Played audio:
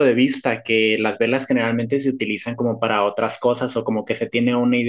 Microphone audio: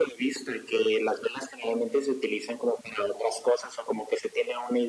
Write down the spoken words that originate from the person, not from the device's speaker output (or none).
none